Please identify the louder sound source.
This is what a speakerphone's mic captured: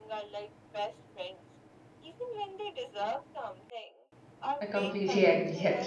user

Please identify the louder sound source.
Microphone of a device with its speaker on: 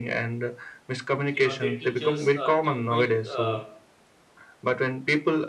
echo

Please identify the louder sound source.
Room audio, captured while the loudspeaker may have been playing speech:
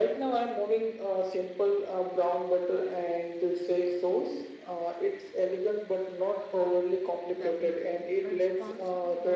echo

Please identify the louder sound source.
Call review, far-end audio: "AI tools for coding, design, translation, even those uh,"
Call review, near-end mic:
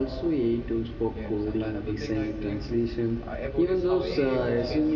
echo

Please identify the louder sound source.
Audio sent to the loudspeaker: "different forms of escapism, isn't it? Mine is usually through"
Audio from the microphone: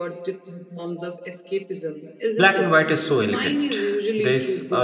user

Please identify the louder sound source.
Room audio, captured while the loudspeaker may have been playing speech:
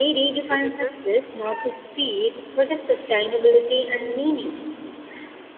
echo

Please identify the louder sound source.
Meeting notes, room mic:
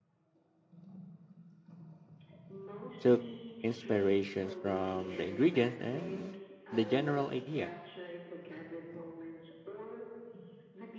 user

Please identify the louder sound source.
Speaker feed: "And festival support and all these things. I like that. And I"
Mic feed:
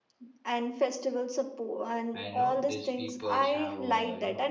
echo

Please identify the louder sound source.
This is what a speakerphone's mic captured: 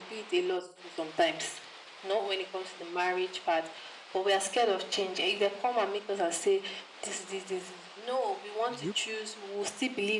echo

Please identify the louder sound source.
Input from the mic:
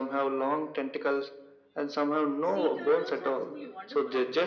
echo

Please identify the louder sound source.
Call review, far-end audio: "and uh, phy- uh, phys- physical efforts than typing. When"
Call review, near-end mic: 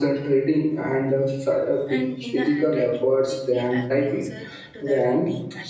echo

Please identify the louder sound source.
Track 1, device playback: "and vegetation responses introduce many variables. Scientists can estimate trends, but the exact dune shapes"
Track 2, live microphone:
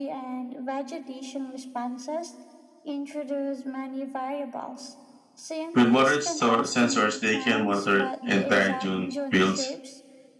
user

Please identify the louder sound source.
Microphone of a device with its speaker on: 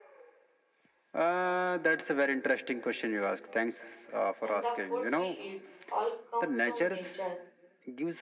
echo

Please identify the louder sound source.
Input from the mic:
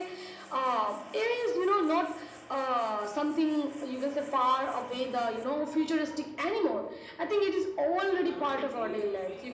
echo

